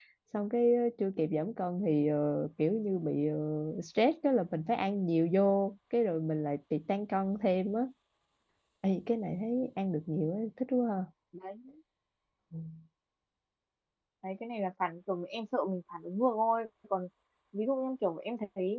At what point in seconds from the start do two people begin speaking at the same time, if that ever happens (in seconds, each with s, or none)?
none